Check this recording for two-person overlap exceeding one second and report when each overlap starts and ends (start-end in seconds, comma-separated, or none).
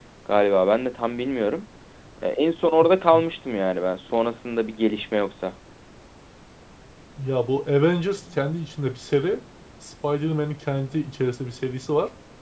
none